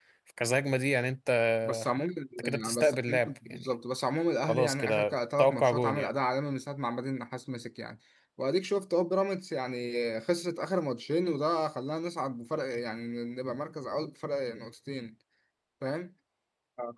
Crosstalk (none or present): present